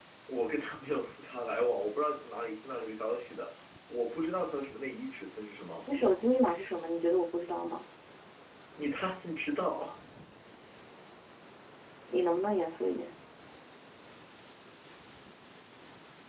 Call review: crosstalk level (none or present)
none